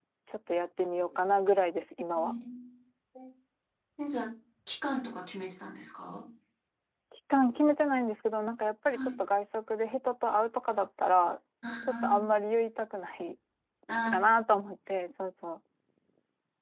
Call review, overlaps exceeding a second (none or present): none